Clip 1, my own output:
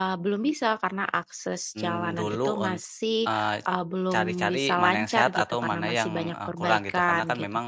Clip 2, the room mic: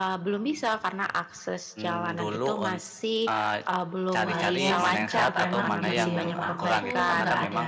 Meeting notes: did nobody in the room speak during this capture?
No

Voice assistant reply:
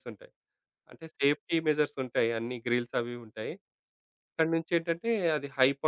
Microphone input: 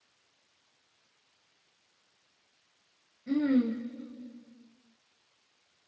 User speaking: Yes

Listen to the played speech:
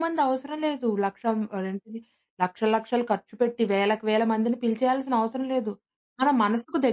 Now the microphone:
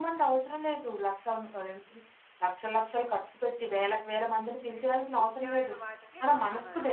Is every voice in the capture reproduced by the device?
No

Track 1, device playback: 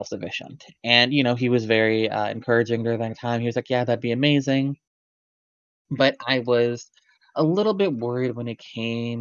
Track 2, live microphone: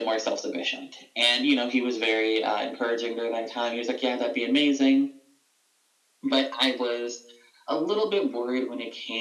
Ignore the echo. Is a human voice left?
No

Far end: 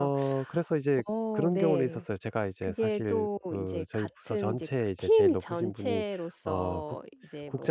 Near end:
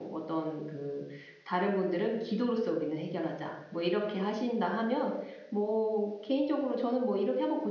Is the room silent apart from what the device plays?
No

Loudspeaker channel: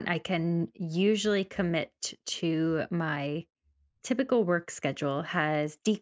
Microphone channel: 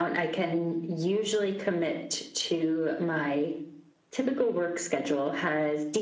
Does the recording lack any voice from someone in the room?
Yes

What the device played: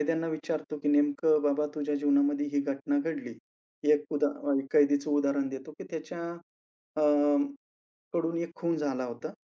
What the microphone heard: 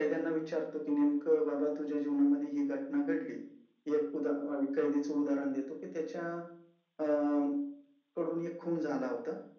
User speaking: No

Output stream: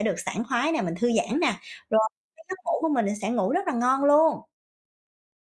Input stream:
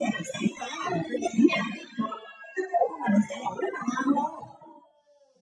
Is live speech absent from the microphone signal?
Yes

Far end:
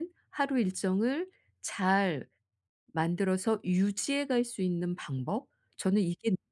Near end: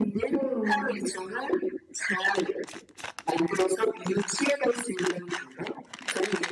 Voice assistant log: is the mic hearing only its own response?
No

